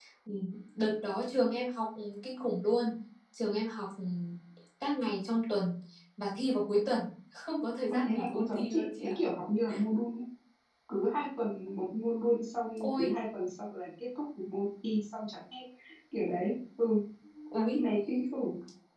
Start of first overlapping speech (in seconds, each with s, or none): 7.9 s